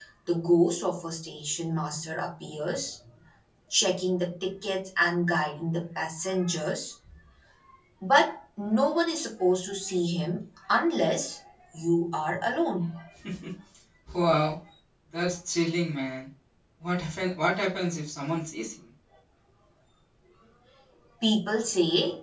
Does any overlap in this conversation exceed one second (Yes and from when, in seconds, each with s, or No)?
No